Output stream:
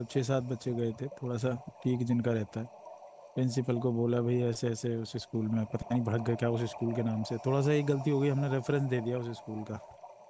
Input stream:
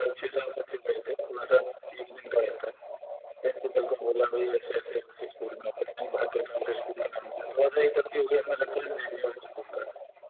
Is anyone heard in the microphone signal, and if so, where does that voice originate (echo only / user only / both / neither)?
echo only